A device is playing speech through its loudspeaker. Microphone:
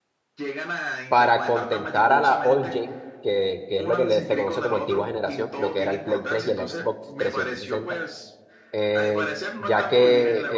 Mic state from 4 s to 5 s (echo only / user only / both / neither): both